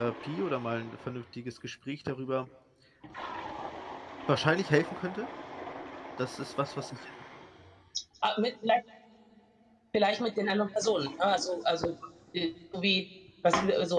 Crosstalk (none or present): none